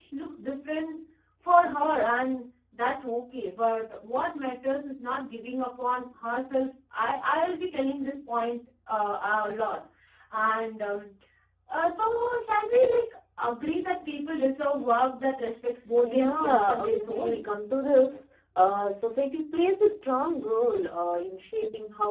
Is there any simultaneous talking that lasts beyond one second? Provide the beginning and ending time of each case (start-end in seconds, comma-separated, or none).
16.0-17.4